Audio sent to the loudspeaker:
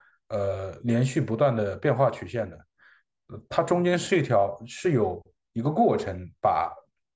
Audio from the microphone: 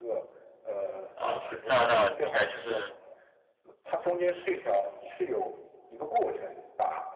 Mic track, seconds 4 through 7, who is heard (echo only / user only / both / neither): echo only